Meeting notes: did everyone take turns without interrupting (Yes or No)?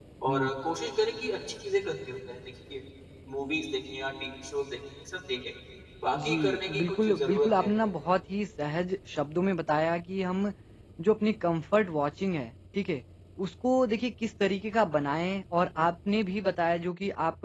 No